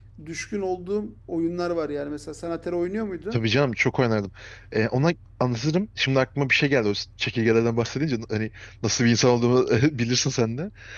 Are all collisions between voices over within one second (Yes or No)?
Yes